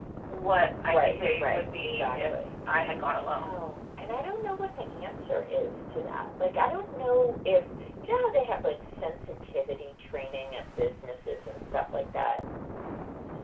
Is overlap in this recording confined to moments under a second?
No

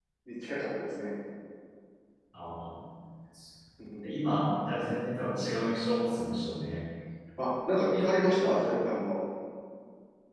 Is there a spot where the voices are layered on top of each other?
No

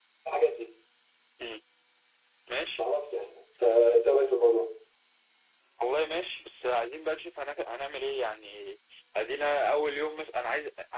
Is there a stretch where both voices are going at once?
No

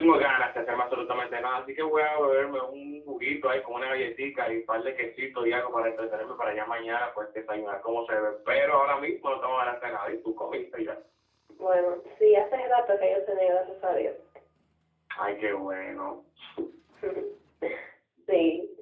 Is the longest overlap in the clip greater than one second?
No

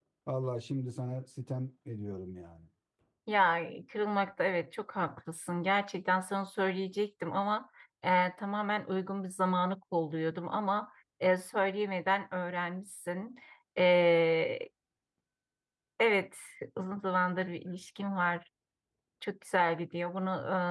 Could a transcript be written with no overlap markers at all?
Yes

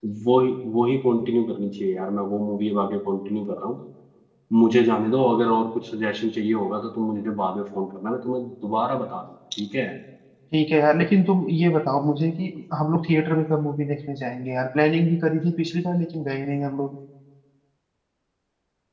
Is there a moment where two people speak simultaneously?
No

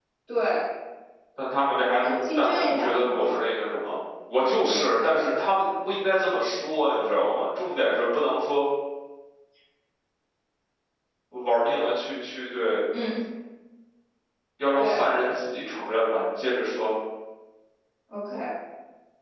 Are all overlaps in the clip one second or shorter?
No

